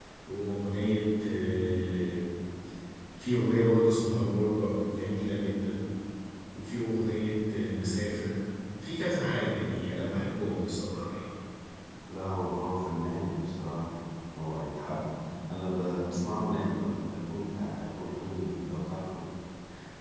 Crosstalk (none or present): none